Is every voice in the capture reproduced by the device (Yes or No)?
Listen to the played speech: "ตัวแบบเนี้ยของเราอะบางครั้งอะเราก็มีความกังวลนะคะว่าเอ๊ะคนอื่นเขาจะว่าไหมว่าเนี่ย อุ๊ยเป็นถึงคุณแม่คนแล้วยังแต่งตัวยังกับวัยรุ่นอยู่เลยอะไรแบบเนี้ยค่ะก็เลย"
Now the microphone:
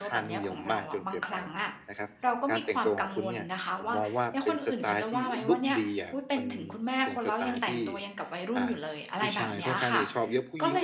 No